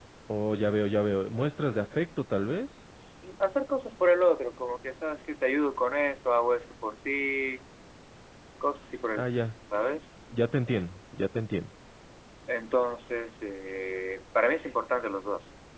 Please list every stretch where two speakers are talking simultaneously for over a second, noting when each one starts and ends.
none

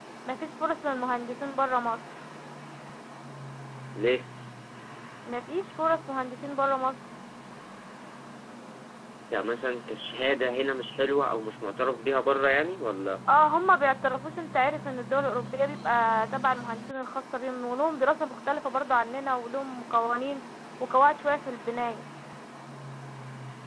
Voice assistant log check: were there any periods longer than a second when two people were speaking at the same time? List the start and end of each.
none

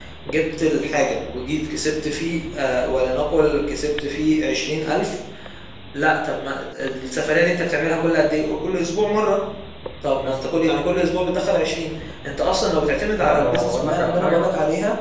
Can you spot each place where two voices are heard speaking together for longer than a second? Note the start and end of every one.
13.2-14.5

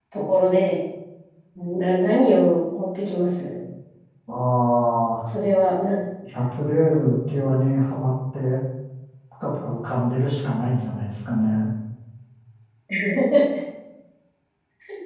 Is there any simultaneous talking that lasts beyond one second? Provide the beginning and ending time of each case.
none

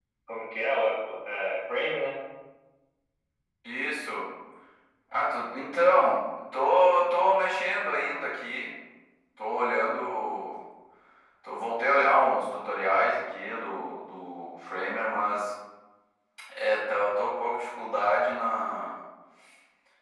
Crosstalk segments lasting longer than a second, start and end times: none

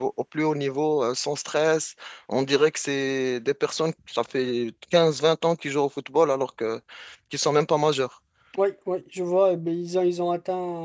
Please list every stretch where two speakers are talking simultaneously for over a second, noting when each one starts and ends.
none

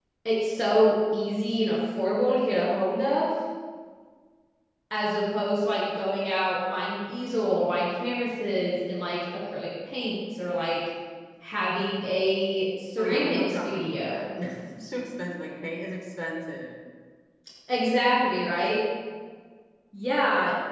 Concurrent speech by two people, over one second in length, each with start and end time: 13.0-14.3

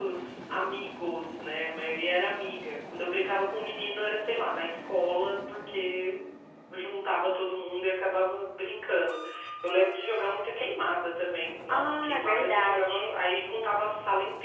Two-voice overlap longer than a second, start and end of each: 11.7-13.1

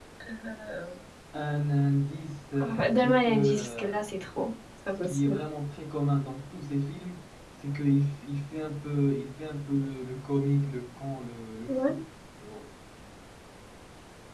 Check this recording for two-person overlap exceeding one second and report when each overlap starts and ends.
2.6-4.0

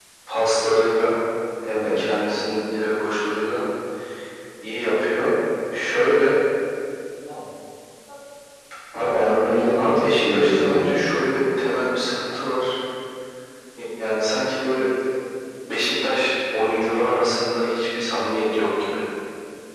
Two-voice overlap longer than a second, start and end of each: 9.8-11.1

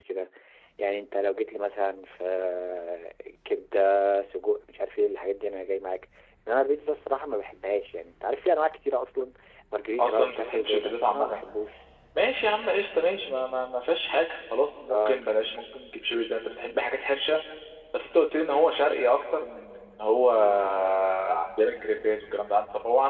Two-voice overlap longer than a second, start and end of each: 10.0-11.4

